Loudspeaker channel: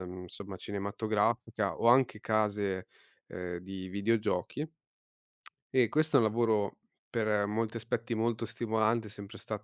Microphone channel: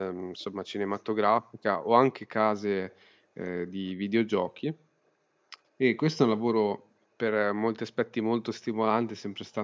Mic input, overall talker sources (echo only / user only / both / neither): echo only